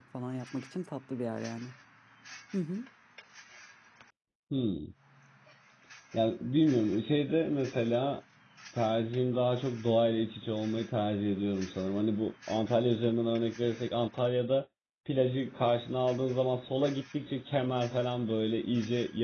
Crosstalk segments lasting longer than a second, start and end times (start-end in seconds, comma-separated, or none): none